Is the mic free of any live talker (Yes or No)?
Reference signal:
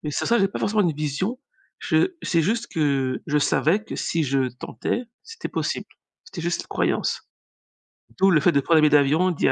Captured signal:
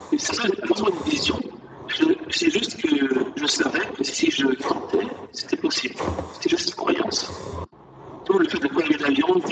Yes